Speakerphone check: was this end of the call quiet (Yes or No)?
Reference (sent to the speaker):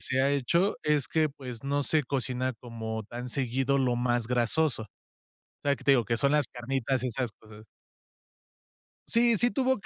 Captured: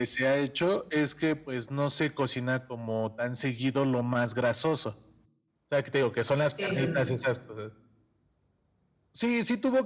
No